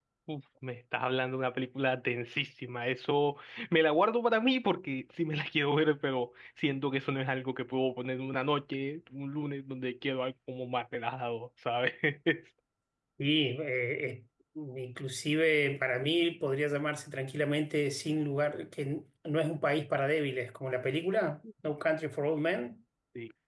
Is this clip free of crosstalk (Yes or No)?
Yes